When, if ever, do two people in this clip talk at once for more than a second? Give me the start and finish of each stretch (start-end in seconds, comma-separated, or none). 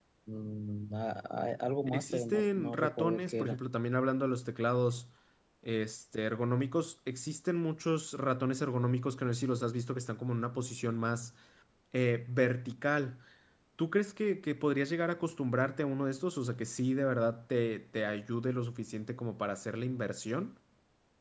1.9-3.6